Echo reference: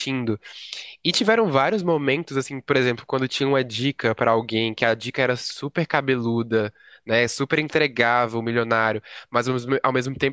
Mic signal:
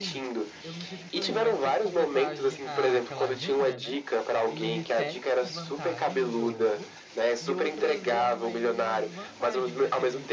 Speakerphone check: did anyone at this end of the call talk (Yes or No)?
Yes